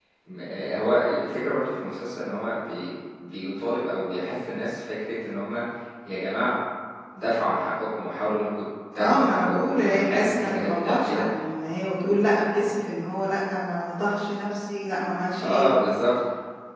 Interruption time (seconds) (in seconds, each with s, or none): 9.0 s